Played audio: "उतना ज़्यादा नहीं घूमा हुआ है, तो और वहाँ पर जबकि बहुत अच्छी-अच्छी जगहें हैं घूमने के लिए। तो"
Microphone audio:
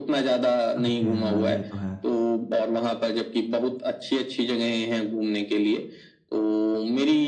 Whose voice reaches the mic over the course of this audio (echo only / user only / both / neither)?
both